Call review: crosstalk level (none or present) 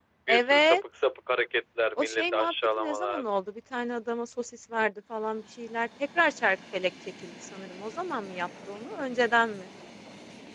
present